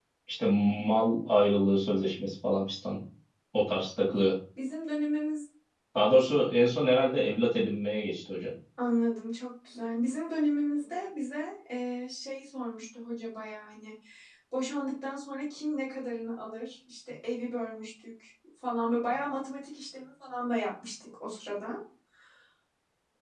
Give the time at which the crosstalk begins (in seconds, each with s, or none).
none